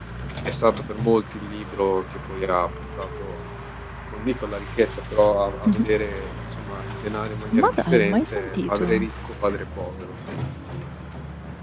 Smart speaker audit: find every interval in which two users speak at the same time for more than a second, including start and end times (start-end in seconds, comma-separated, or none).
7.6-8.8